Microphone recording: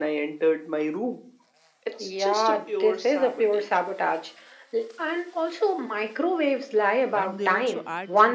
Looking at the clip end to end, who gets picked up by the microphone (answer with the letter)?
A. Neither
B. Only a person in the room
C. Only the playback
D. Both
D